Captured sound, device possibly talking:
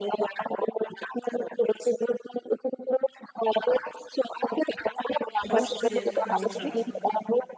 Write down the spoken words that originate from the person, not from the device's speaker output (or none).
positive emotions.